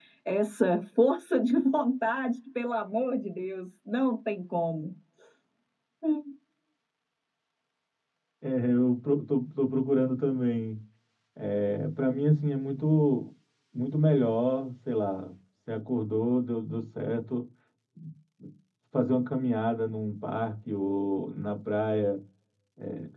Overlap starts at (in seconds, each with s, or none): none